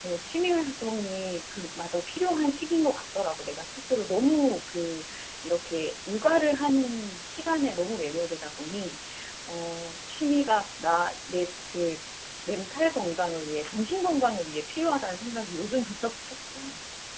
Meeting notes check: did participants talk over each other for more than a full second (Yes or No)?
No